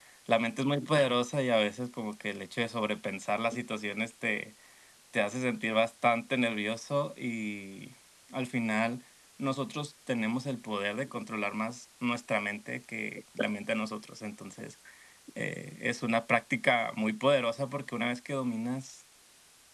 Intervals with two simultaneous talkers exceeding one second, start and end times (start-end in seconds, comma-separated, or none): none